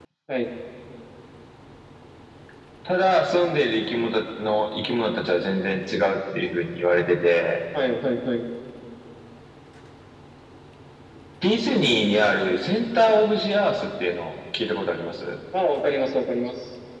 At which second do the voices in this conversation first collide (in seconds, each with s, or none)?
none